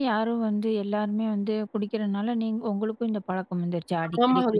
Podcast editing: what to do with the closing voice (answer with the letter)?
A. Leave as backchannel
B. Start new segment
B